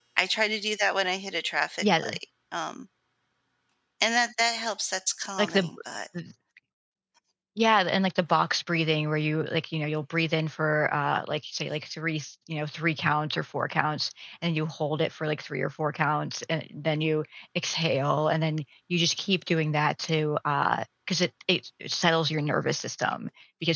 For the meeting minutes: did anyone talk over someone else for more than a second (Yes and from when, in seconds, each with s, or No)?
No